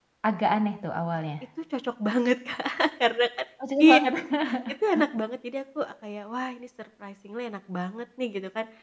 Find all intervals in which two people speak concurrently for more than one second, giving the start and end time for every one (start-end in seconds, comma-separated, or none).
none